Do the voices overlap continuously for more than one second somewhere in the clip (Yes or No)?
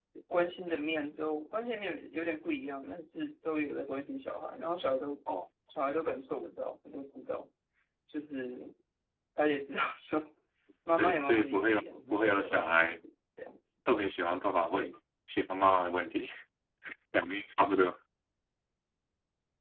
Yes